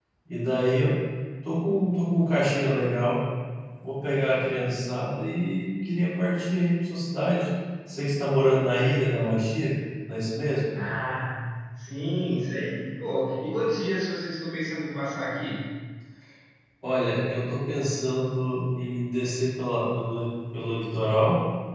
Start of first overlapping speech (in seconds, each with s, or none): none